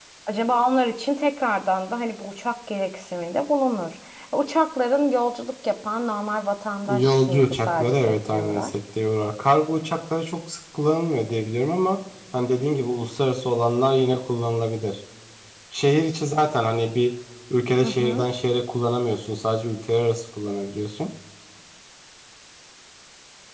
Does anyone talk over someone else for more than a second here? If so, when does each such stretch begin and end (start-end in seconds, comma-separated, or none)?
7.0-8.7